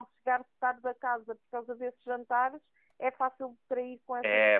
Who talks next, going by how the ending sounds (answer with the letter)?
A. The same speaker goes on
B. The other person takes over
B